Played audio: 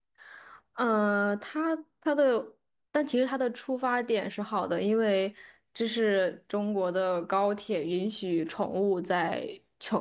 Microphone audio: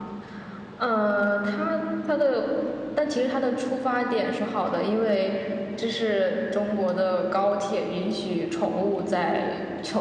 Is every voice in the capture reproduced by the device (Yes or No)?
Yes